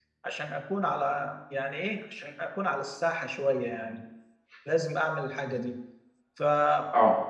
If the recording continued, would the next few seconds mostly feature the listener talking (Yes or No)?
No